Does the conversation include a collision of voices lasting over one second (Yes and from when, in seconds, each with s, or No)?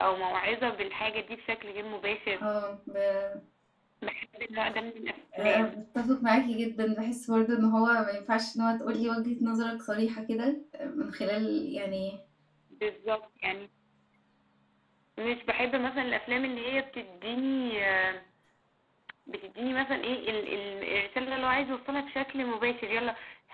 No